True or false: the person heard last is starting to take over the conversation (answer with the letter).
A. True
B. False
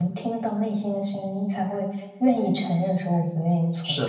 A